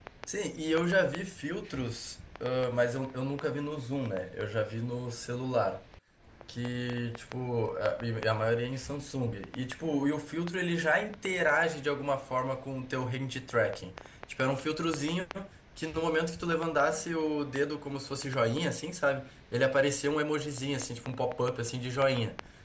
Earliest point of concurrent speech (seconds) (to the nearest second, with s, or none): none